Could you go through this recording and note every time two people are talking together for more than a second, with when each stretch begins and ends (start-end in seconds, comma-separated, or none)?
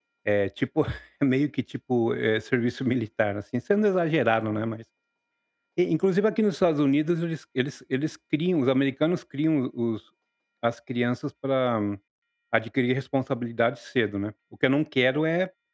none